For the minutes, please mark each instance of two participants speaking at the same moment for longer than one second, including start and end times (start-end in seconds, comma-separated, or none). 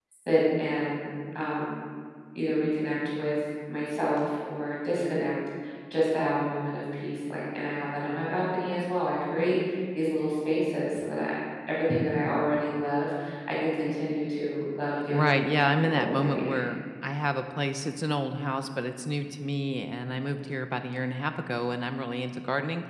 15.1-16.6